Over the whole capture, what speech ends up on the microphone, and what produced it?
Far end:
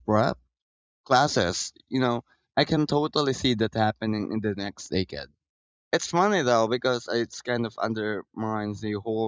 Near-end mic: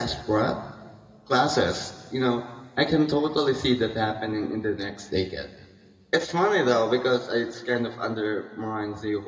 echo only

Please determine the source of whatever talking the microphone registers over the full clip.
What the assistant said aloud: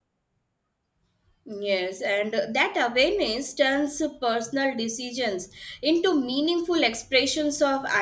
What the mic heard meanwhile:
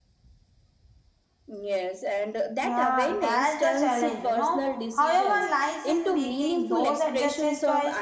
both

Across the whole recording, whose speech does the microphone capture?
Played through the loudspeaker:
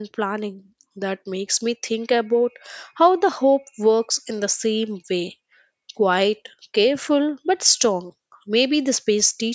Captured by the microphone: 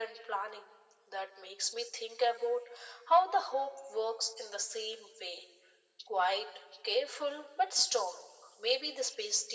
echo only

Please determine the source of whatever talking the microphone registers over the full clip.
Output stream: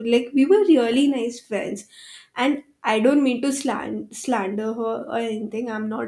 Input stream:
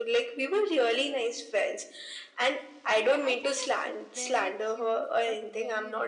both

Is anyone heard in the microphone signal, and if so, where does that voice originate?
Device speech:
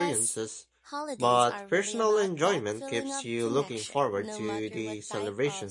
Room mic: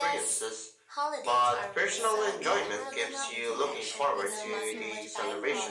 both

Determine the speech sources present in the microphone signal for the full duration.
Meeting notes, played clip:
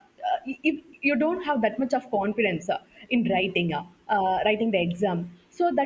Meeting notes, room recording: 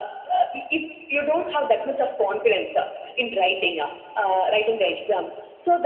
echo only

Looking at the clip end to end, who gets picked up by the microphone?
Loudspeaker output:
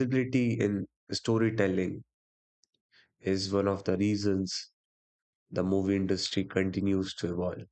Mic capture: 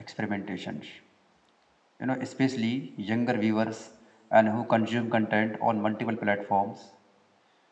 user only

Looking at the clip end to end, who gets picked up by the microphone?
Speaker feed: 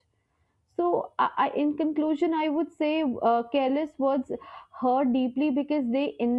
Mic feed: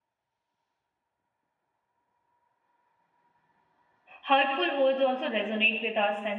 user only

